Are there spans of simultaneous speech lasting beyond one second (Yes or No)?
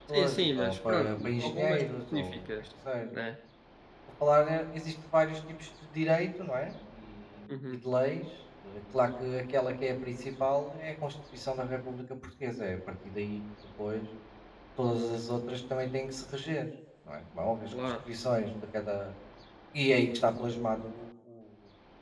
Yes